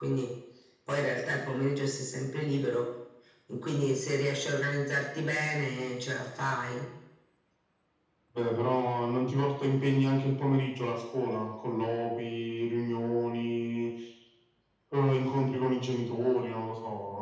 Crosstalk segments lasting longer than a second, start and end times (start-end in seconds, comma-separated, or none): none